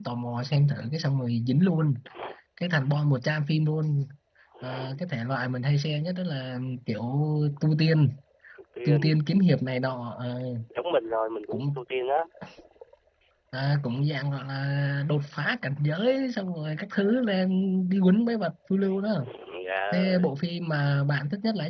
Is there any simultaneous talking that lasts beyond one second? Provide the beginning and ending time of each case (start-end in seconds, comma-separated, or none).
none